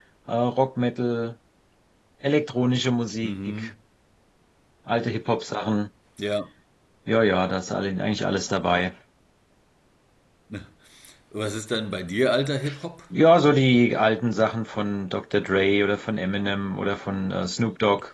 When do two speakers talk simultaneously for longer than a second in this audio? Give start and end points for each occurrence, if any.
none

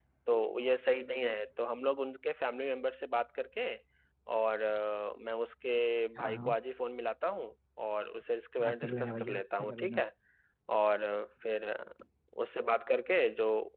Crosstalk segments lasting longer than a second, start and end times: 8.6-10.0

